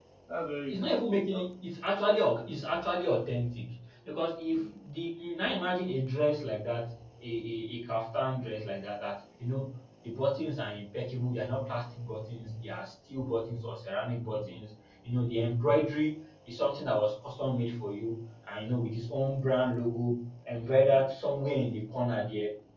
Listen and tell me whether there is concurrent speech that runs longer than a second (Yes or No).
No